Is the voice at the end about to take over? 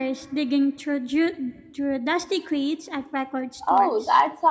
Yes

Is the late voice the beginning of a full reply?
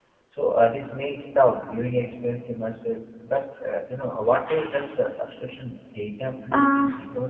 Yes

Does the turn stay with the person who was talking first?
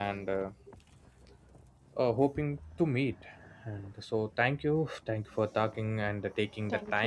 Yes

